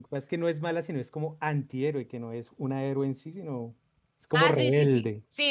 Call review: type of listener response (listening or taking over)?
taking over